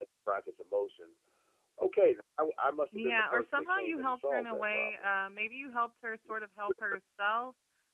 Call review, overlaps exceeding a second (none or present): present